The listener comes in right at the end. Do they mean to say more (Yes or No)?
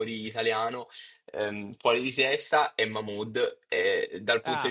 No